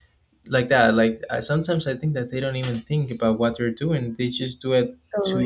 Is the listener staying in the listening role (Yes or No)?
Yes